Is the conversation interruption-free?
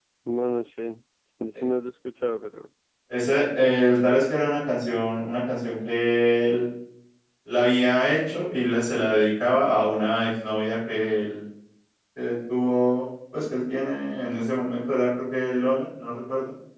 Yes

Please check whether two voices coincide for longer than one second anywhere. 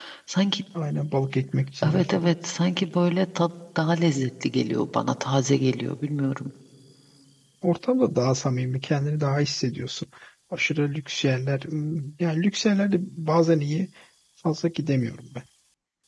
No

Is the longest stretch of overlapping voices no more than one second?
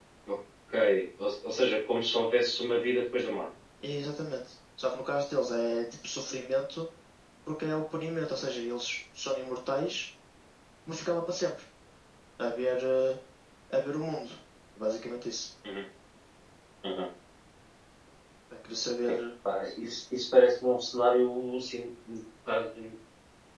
Yes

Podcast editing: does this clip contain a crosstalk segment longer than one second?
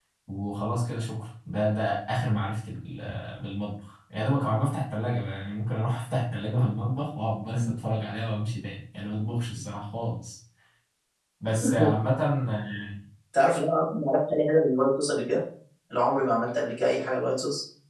No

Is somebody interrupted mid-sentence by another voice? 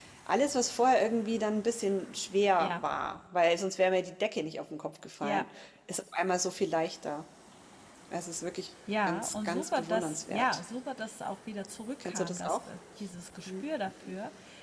Yes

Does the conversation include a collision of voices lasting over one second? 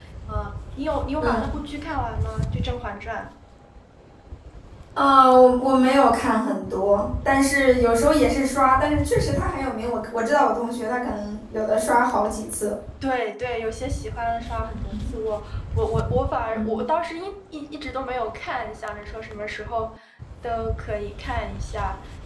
No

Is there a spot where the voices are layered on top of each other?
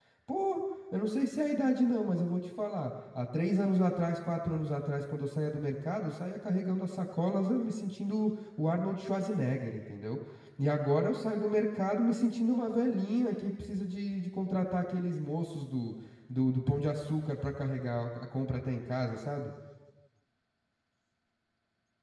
No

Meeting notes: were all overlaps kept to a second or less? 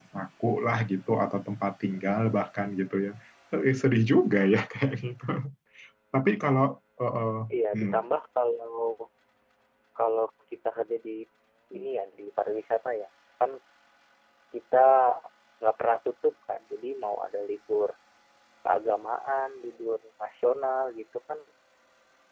Yes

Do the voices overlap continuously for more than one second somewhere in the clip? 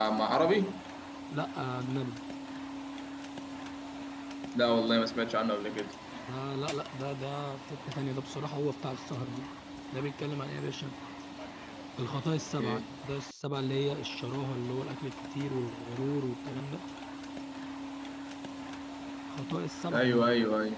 No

